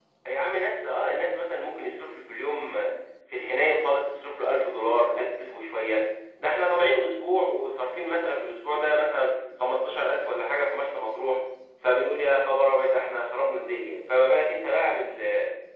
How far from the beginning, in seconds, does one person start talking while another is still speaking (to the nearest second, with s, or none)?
none